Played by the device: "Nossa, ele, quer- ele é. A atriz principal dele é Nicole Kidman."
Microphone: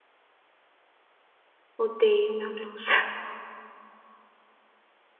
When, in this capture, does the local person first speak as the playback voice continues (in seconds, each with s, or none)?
1.8 s